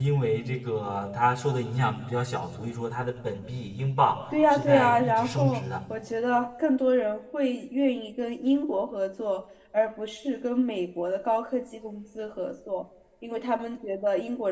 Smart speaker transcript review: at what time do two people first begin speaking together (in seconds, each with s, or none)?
4.3 s